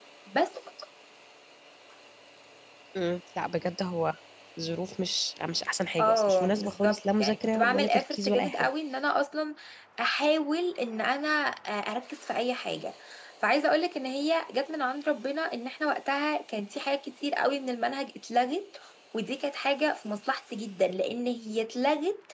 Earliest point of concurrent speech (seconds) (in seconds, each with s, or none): 6.0 s